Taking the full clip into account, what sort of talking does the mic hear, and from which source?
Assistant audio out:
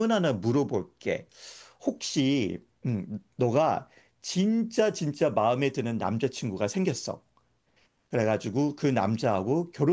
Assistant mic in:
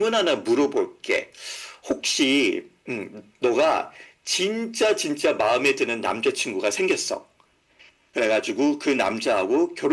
echo only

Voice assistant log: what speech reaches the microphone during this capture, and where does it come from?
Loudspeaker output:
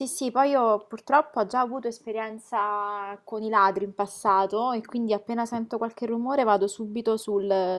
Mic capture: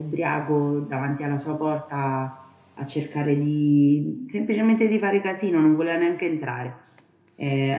user only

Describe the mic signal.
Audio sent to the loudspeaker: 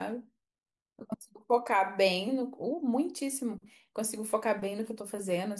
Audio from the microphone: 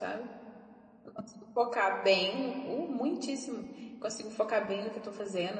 echo only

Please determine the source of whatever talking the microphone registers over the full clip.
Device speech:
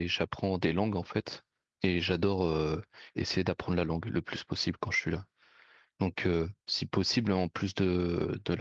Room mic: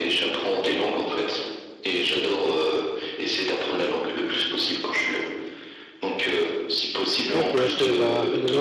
both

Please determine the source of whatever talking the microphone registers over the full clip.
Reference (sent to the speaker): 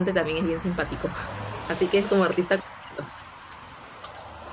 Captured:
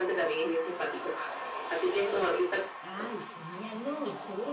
both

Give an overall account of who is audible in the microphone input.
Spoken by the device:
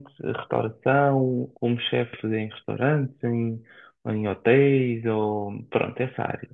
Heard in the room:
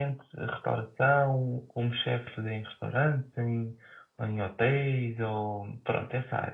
echo only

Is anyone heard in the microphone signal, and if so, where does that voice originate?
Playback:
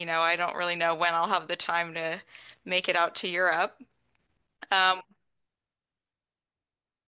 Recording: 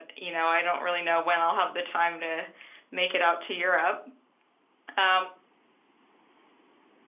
echo only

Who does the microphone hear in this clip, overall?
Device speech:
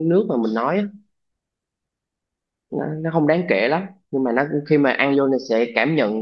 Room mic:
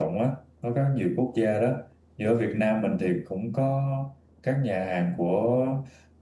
user only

